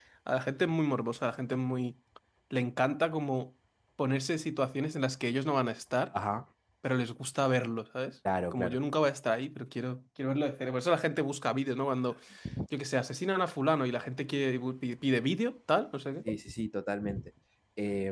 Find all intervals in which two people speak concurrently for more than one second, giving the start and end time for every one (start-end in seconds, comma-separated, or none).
none